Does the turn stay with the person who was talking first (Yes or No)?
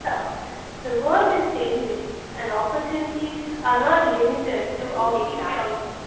No